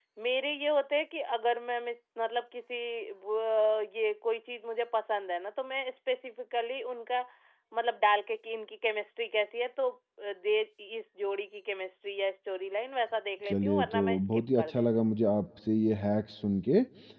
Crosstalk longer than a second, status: present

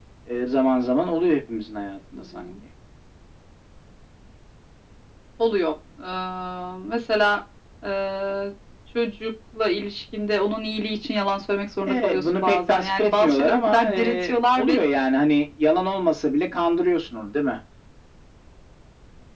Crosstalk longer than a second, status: present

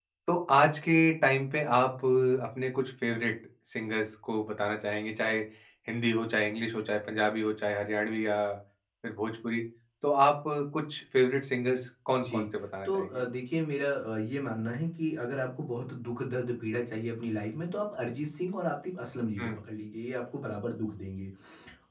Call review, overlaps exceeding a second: none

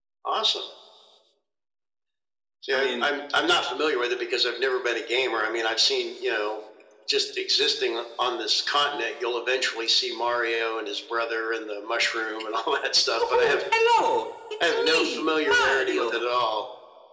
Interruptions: present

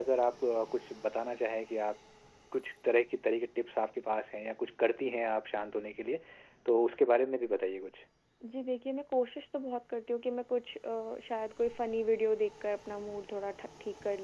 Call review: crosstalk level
none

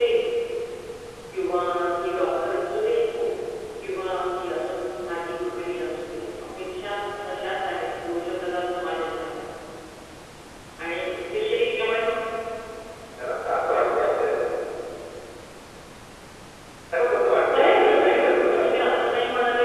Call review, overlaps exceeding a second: present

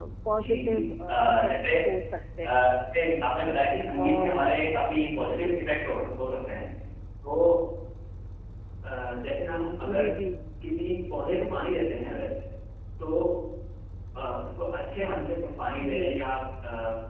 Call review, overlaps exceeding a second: present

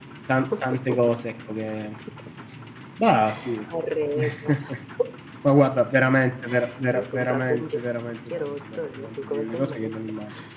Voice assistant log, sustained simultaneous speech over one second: present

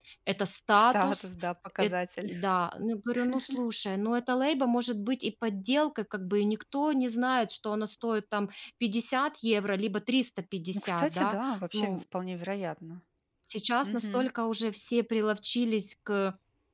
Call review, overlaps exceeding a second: present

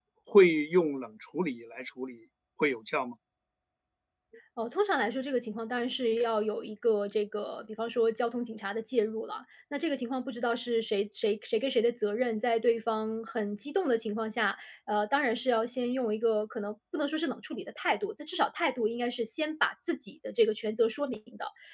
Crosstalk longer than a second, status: none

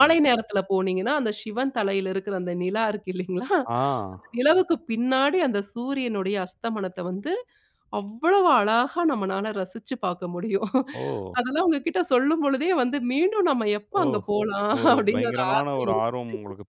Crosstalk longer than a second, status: present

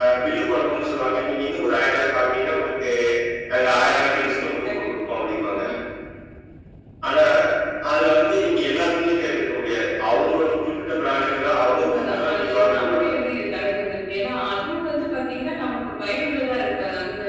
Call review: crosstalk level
present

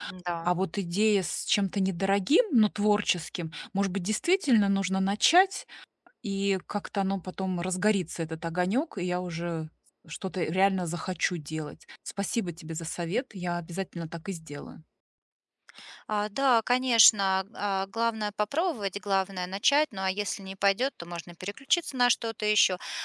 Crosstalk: none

